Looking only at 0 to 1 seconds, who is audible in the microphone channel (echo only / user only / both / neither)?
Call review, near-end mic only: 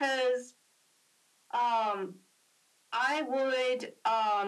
echo only